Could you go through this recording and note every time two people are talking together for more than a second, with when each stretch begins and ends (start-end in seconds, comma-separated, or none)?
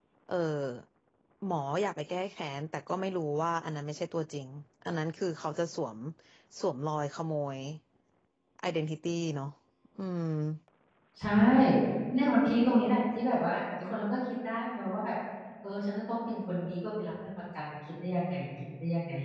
none